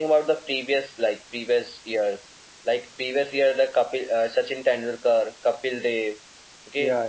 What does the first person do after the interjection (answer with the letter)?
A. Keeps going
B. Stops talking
A